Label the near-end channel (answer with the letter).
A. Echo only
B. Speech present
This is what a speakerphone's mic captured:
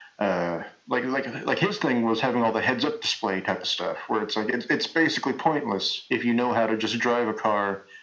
A